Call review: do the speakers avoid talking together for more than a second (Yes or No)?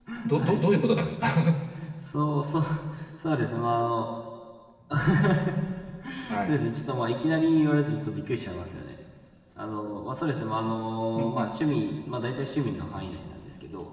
Yes